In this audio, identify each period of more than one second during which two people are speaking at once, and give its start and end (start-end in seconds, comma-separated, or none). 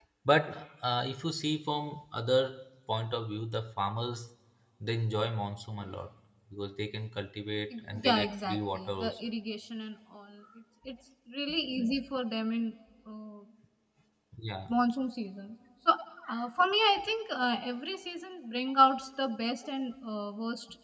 7.9-9.1